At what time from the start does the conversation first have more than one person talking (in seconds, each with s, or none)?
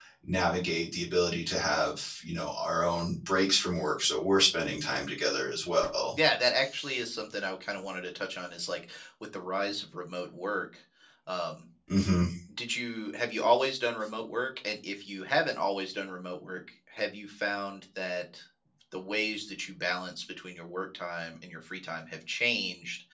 none